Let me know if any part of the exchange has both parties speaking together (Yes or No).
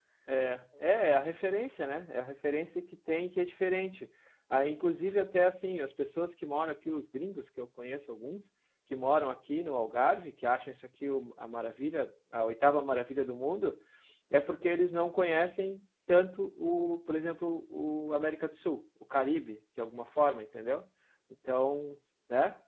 No